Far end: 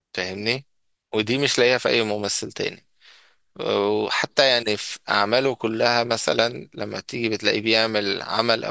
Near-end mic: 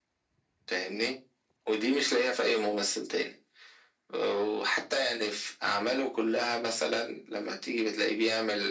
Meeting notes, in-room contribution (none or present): none